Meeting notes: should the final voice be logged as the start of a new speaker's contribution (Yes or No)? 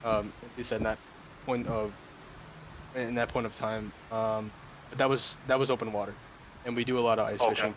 No